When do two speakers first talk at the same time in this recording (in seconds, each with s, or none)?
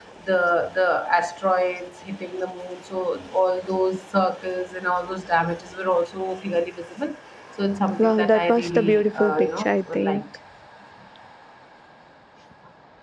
8.0 s